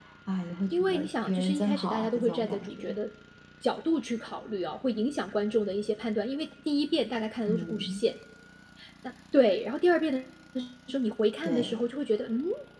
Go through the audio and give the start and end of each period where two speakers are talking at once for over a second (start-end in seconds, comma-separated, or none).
0.7-3.0